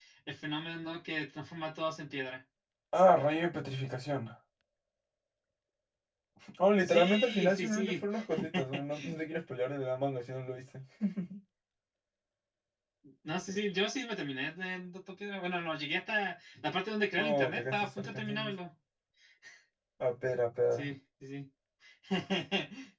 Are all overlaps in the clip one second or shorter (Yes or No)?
No